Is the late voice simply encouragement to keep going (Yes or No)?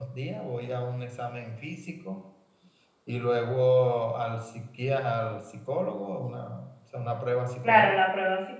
No